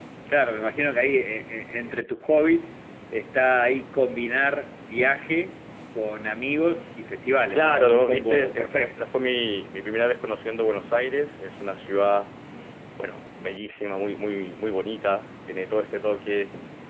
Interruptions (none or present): present